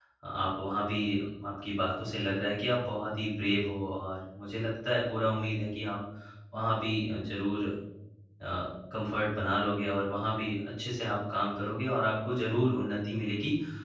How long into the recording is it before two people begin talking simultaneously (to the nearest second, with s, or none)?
none